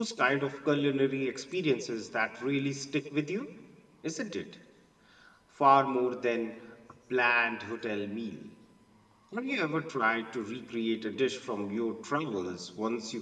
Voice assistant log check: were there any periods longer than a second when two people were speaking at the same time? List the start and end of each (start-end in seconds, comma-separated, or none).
none